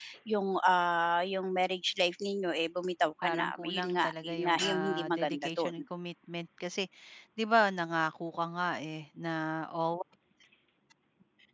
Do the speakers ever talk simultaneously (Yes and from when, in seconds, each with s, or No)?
Yes, from 3.2 s